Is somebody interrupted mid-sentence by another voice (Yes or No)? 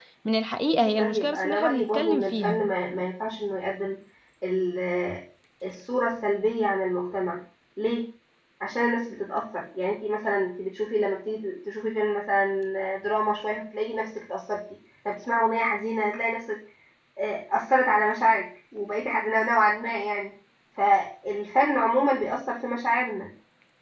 Yes